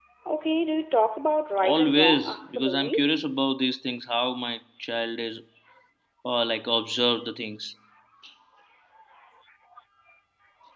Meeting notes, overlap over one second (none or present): present